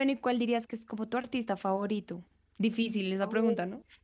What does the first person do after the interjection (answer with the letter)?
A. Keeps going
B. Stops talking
B